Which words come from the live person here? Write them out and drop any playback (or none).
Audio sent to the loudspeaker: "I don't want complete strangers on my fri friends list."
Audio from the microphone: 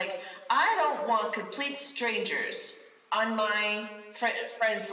none